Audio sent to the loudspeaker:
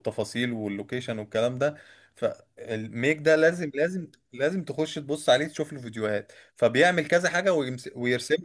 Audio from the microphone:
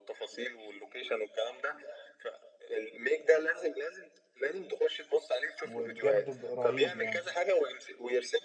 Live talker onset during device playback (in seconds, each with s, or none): 5.6 s